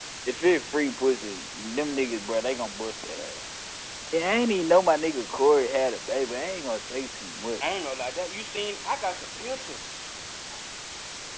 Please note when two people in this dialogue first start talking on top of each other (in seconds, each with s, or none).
none